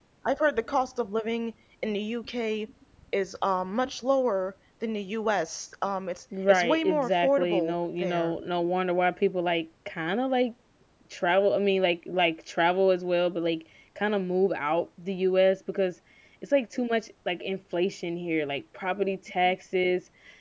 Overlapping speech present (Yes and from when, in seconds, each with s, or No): Yes, from 6.3 s